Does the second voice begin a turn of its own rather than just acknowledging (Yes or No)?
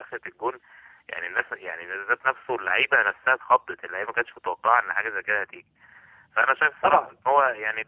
No